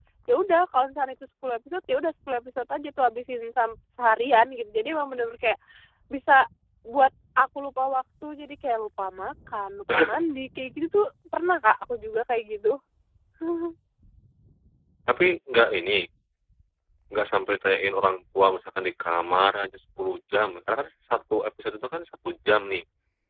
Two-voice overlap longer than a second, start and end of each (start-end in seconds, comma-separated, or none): none